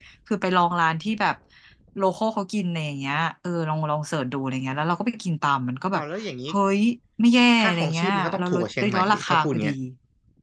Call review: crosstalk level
present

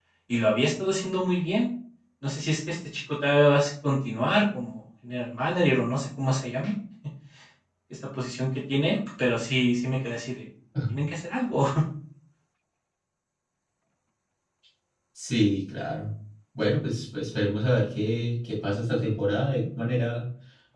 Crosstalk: none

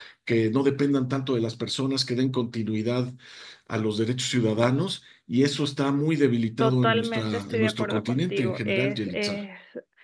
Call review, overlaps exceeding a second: present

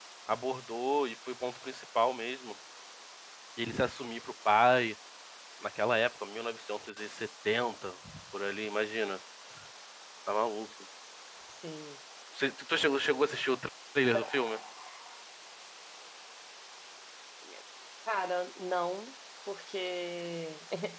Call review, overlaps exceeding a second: none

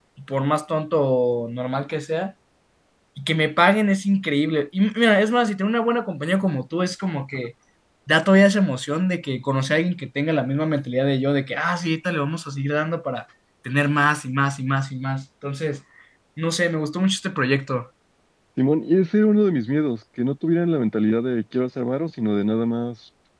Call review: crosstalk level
none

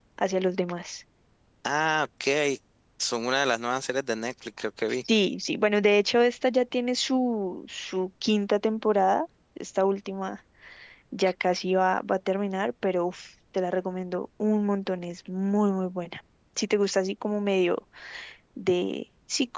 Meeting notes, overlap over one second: none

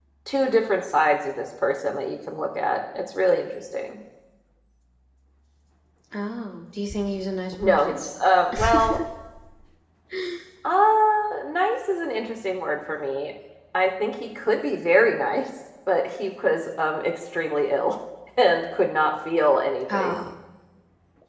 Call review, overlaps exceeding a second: none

